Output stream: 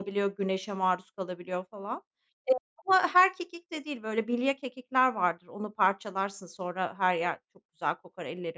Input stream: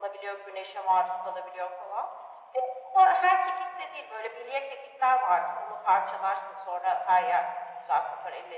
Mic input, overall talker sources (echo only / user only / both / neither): echo only